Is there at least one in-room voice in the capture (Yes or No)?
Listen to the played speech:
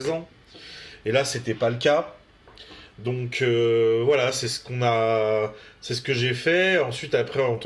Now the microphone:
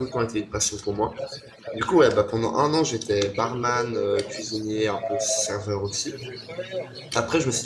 Yes